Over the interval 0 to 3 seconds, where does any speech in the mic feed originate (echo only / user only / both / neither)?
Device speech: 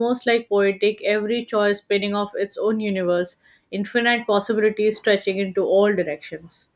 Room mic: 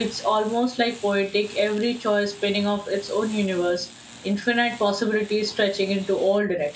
echo only